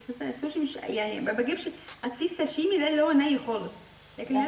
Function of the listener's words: listening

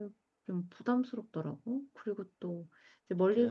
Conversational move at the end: listening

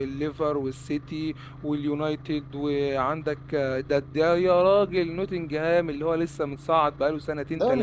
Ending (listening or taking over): taking over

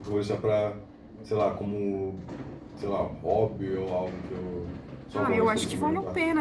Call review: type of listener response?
taking over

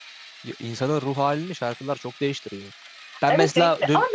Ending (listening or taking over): taking over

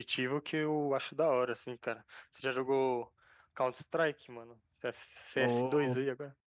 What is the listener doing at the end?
taking over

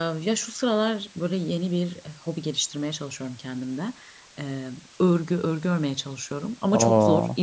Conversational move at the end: listening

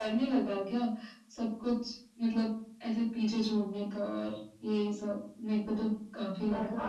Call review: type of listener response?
taking over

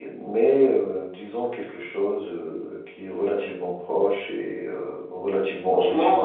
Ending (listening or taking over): listening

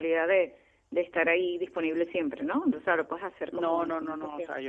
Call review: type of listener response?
taking over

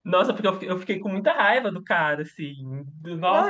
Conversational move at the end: taking over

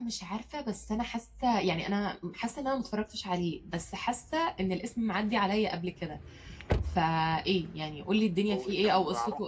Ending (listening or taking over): taking over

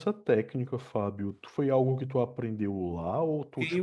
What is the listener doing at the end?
taking over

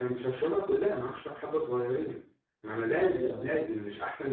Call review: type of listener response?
listening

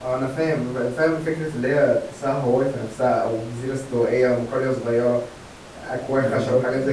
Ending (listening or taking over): listening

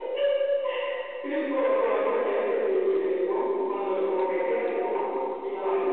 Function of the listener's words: taking over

